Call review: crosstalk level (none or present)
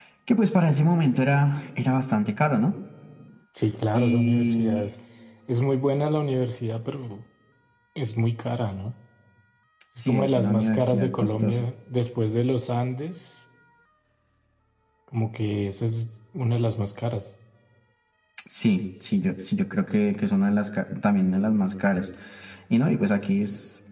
present